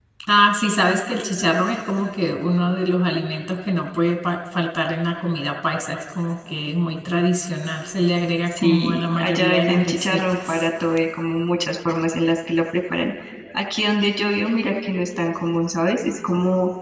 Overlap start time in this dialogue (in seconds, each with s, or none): 8.5 s